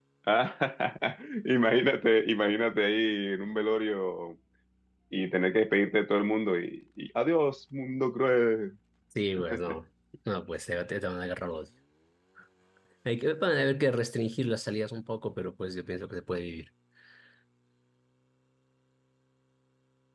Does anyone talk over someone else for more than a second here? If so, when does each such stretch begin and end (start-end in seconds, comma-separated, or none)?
none